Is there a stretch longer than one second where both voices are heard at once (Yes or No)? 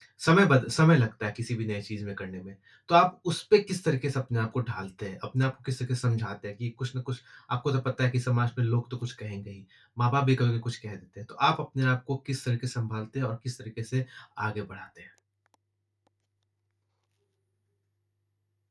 No